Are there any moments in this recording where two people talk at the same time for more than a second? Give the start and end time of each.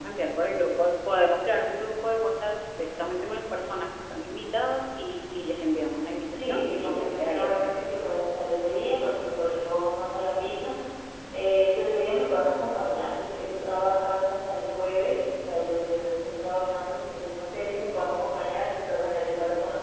6.3-7.7

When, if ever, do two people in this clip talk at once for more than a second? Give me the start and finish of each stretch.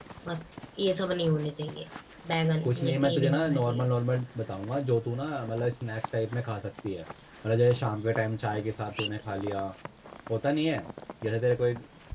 2.6-3.9

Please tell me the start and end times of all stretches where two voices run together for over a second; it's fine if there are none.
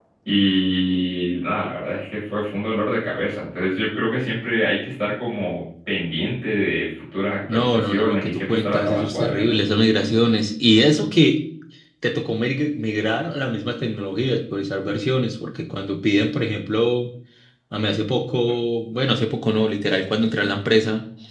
7.5-9.6

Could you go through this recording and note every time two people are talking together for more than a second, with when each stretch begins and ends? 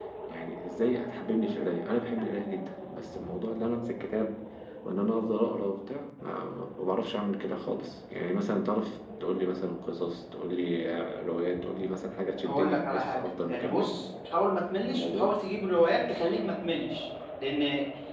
12.4-14.0

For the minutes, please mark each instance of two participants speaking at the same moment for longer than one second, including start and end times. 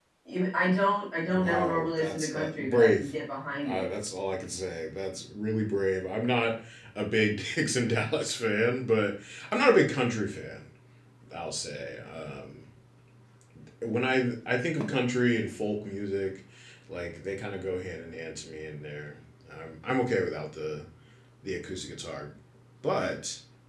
1.3-3.1

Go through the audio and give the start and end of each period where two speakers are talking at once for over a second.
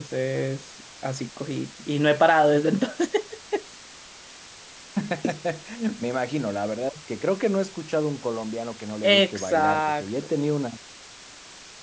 9.0-10.3

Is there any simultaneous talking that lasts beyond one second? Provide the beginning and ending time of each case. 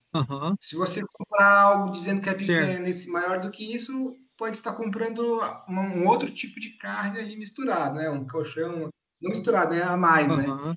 none

